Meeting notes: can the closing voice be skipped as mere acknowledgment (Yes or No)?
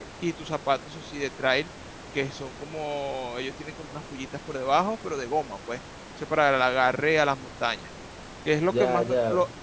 Yes